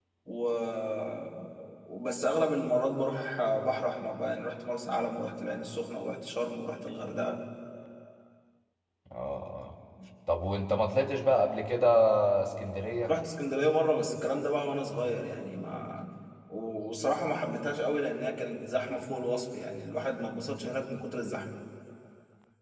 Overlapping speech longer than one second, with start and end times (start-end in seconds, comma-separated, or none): none